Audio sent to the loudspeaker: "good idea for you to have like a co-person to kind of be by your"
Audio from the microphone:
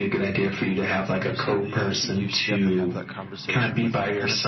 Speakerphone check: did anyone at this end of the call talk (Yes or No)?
Yes